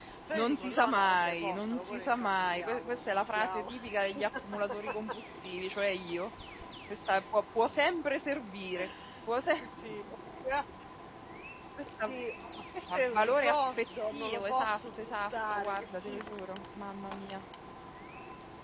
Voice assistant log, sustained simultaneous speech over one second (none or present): present